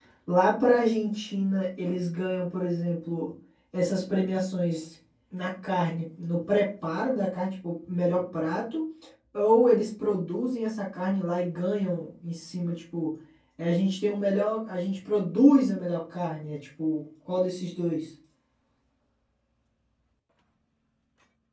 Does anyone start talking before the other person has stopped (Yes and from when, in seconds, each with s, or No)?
No